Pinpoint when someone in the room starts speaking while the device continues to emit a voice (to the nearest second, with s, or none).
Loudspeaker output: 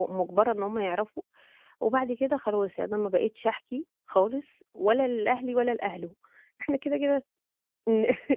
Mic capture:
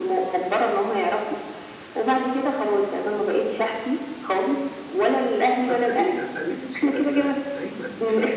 6 s